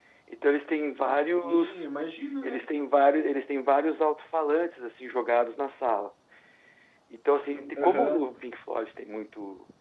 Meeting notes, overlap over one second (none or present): none